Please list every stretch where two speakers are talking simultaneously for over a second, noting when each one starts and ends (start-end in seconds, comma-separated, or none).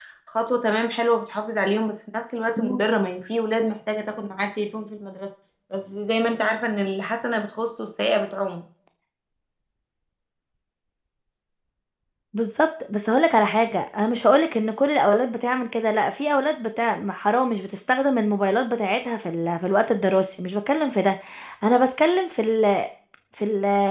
none